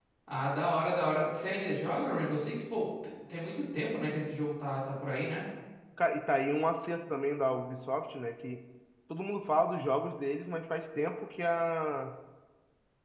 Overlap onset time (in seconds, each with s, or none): none